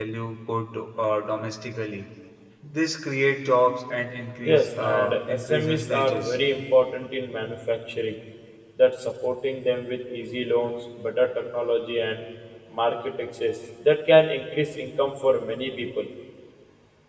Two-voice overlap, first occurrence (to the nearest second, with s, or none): 4 s